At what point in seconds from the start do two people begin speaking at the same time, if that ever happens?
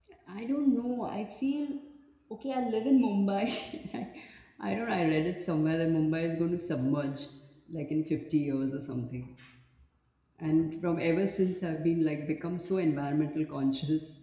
none

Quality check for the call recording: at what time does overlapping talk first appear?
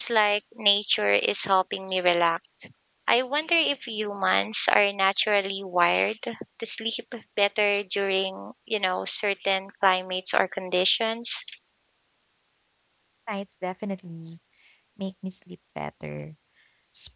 none

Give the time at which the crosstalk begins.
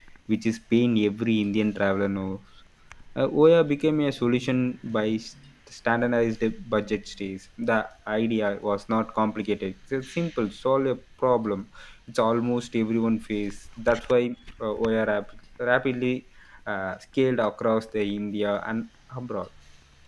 none

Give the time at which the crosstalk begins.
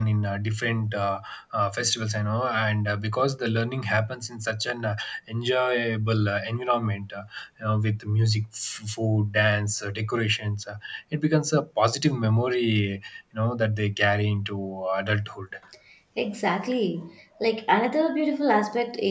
none

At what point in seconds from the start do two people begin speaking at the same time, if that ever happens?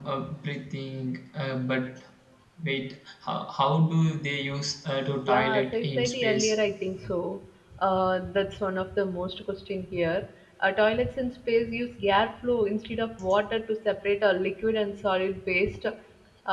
5.2 s

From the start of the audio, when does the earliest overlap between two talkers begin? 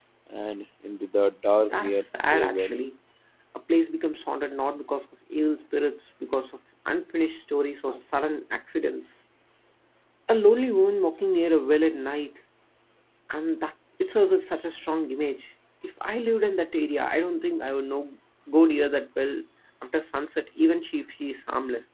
1.6 s

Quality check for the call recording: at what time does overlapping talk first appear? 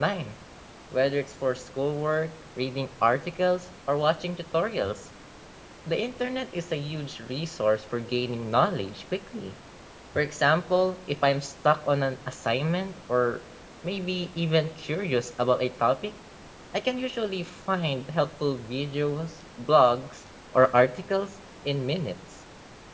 none

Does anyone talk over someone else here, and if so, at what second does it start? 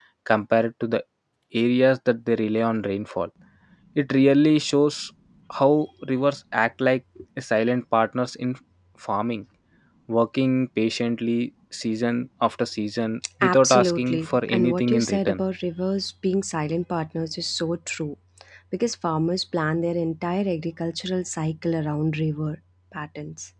13.4 s

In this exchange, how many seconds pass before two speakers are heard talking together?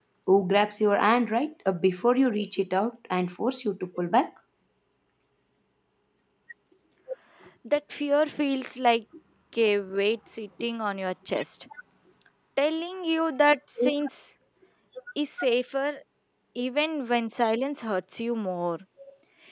none

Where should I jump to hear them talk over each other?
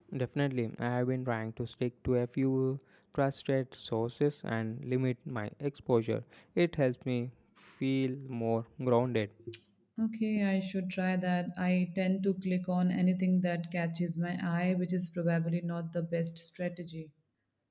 none

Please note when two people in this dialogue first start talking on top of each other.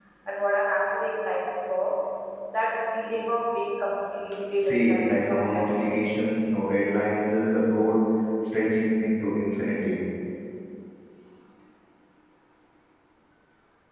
4.5 s

